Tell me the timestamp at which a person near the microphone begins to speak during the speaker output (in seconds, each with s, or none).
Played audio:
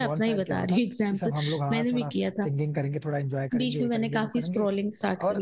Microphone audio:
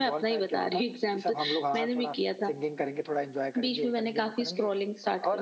none